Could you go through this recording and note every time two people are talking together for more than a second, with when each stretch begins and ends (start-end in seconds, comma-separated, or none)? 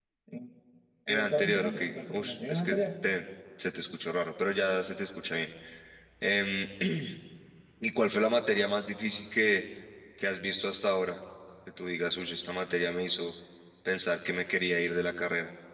1.1-2.9